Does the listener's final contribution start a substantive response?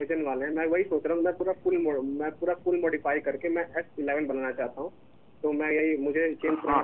No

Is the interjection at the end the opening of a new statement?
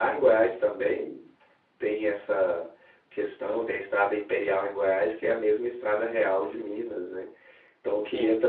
No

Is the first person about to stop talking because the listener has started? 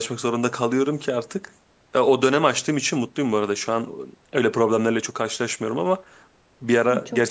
No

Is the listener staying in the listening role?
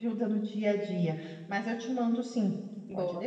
No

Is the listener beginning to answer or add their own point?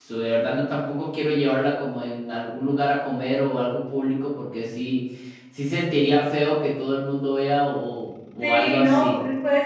Yes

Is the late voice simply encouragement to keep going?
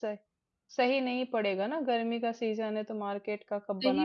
No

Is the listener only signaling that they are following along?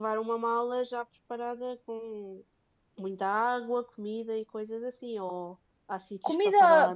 No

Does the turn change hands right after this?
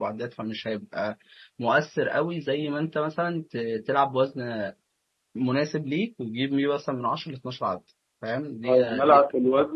Yes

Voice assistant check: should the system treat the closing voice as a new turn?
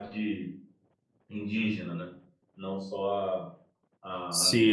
Yes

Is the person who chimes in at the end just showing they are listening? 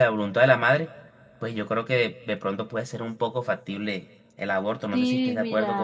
No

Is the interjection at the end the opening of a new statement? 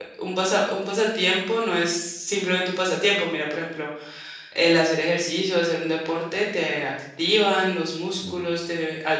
No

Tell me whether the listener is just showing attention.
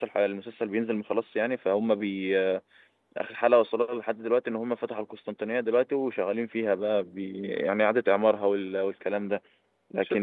No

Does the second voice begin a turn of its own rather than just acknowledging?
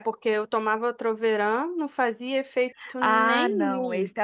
Yes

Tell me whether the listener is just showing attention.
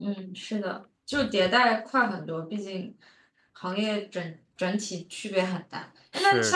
Yes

